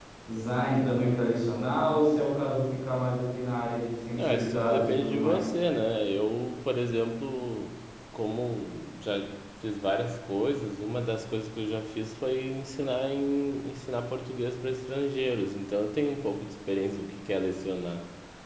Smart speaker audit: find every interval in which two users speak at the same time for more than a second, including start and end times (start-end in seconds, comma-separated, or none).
4.1-5.5